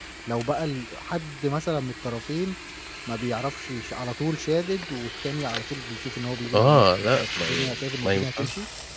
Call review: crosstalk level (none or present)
present